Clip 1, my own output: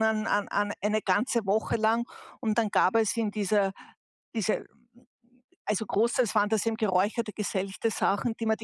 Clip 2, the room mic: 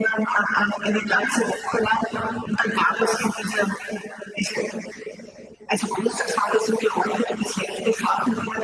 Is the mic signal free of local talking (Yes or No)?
Yes